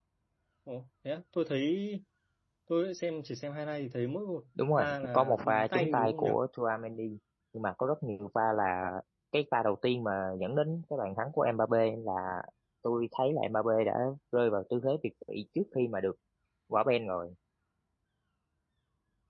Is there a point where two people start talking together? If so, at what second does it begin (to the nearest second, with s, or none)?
5 s